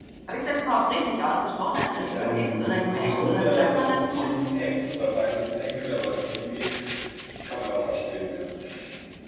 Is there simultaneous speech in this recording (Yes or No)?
Yes